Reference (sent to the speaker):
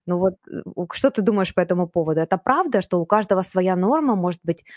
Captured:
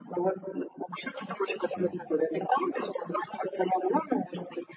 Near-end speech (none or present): present